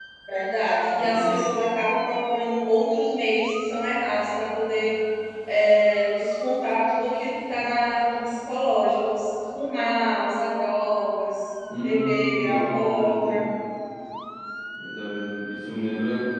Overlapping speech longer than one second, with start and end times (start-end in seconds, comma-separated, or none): 11.8-13.4